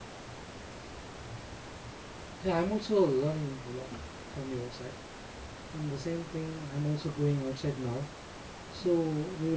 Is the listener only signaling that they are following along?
Yes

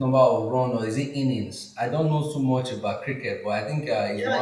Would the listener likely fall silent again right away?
No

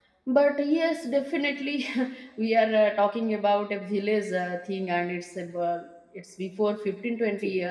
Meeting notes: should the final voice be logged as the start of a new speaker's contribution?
No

